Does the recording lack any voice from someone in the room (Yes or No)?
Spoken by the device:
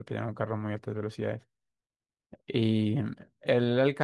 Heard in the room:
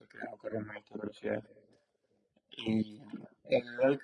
Yes